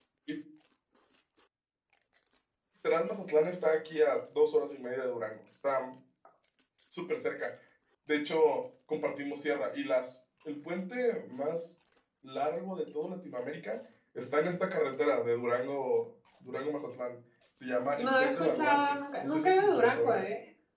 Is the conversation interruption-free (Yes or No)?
No